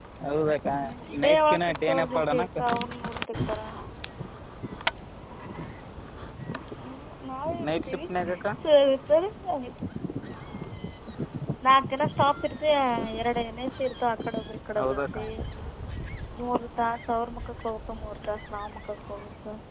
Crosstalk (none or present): present